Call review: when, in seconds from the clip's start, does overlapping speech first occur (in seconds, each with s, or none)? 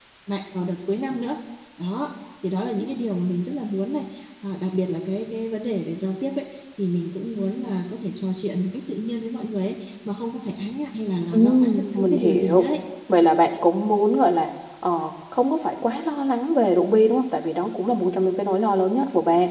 11.3 s